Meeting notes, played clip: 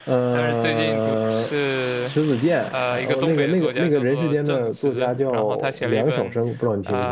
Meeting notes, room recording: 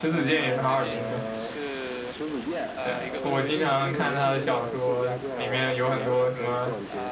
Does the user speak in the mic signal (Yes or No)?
Yes